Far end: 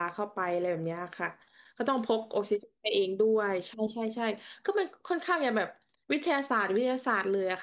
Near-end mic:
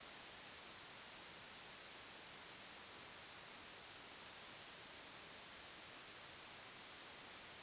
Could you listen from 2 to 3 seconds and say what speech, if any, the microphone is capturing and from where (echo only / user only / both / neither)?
neither